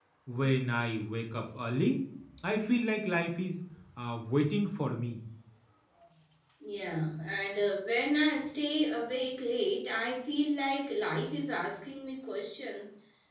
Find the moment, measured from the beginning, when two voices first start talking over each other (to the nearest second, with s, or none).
none